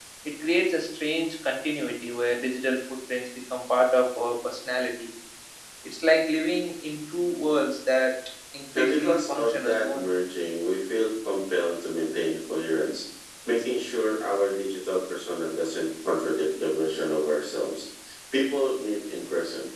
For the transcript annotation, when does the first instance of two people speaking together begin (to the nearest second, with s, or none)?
9 s